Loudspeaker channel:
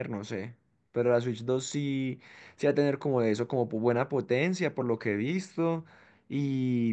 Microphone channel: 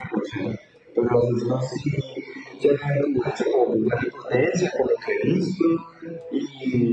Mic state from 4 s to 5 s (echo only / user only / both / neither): echo only